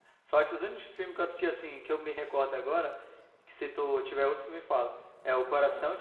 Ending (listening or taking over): listening